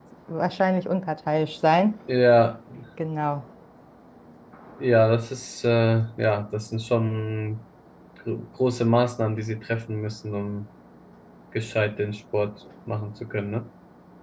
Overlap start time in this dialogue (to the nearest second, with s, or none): none